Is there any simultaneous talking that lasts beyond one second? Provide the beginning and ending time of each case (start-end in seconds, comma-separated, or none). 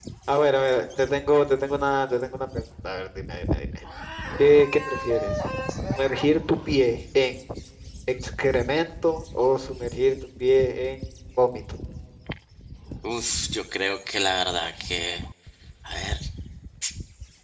none